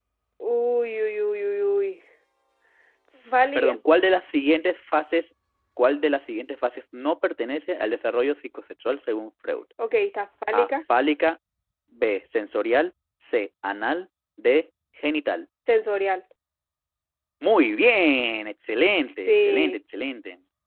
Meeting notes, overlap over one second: none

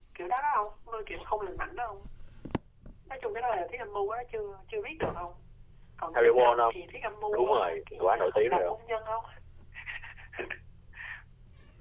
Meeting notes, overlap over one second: present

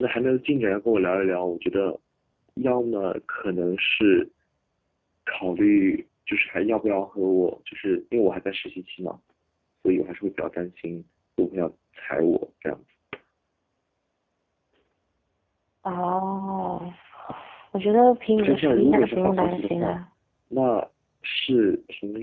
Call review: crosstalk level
present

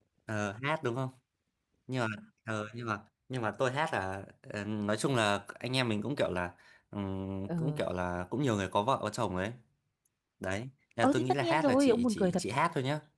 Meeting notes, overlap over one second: present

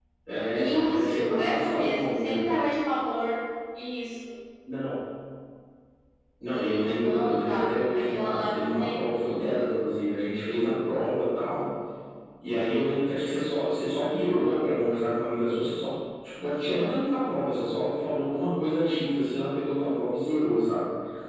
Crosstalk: present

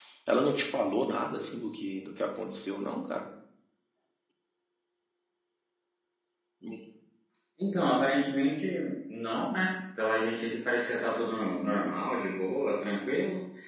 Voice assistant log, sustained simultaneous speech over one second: none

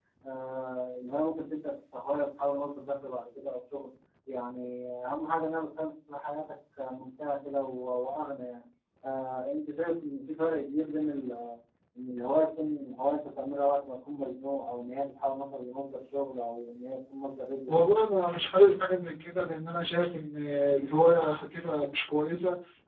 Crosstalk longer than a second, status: none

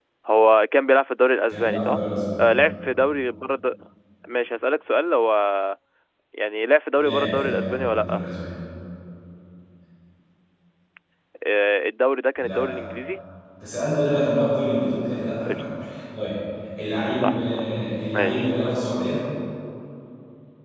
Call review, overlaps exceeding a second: present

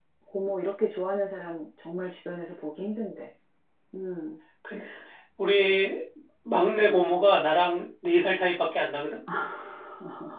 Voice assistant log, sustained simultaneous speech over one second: none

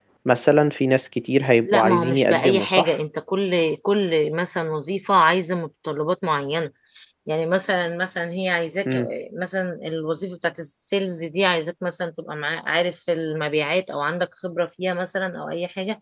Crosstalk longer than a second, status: present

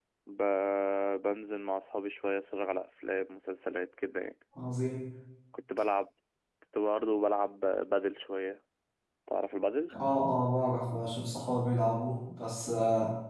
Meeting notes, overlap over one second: none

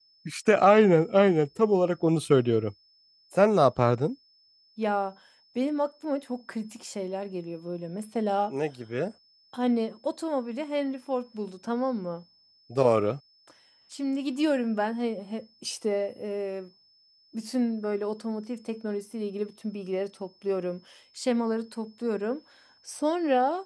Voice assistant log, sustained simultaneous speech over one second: none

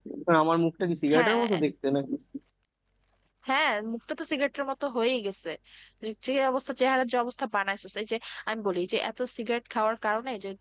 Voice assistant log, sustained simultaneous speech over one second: none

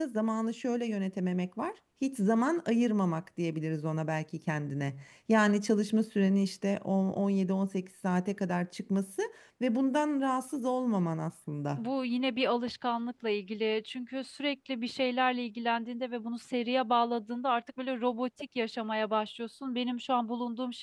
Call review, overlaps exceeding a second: none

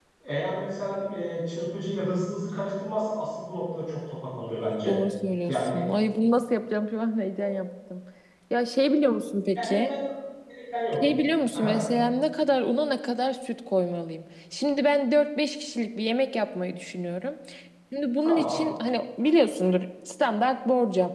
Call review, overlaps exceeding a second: none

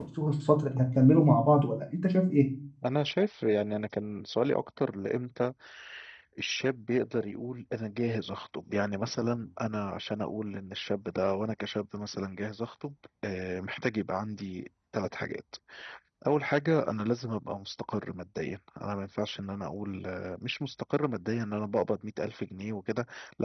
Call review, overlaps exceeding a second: none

